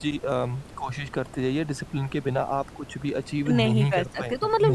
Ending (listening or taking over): taking over